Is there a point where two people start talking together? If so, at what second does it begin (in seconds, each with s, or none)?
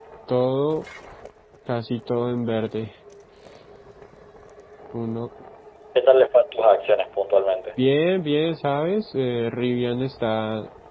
none